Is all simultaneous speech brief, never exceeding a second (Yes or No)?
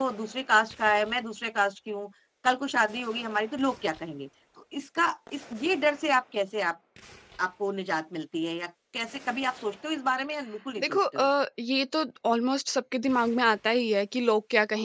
Yes